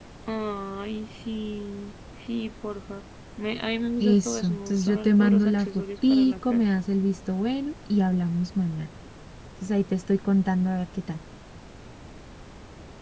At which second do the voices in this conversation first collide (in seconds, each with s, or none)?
4.0 s